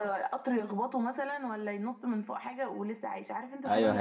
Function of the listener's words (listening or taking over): taking over